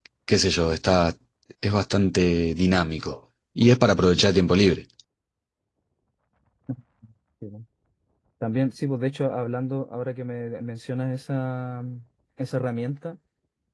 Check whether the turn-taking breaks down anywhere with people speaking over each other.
No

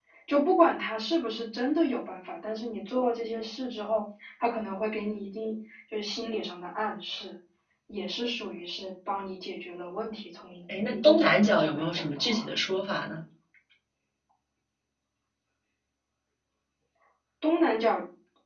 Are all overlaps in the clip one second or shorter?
No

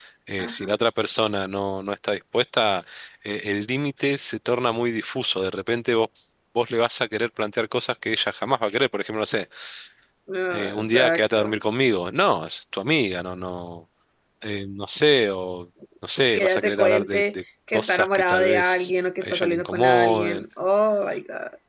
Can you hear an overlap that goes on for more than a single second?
Yes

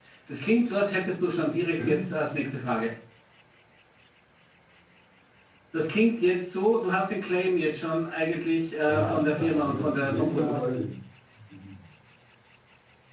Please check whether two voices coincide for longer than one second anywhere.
Yes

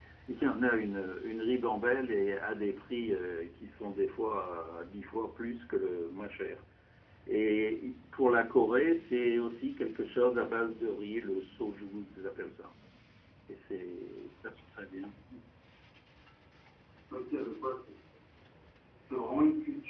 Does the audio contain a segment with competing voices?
No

